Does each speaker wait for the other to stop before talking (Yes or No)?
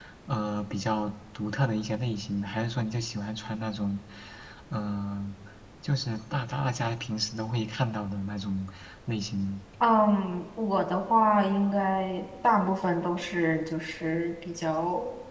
Yes